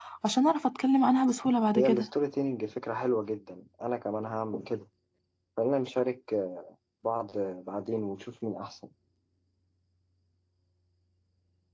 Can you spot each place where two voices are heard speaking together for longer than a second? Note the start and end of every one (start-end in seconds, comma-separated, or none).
none